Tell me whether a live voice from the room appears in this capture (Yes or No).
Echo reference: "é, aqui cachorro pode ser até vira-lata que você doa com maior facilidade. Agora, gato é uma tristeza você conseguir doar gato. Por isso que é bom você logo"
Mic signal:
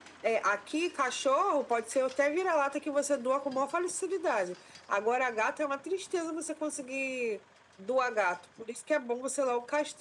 No